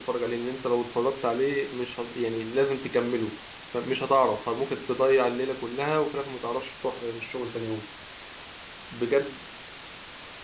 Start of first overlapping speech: none

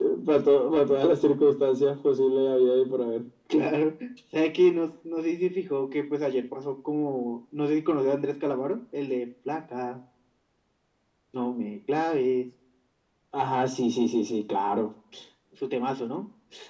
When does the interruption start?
none

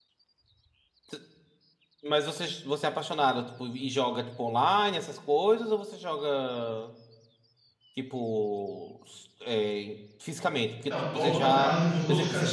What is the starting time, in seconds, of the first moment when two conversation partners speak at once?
10.9 s

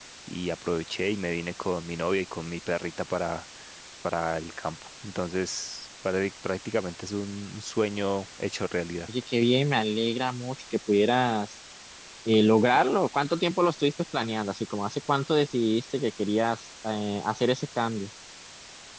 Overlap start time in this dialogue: none

